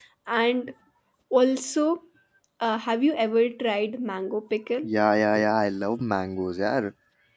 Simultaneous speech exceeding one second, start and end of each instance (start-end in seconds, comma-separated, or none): none